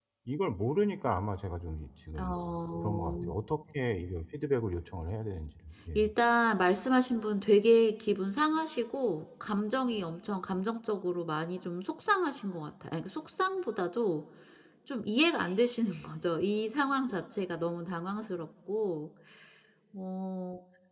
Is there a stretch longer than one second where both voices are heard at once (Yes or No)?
No